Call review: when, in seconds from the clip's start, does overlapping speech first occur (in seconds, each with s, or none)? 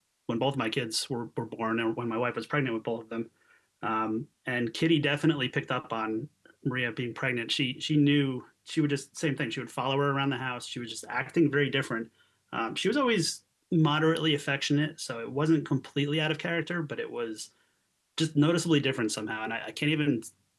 none